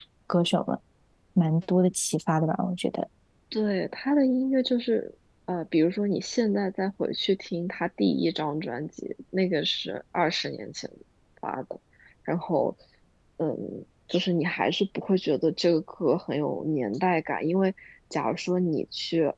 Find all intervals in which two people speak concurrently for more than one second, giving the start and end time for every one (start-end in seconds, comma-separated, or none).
none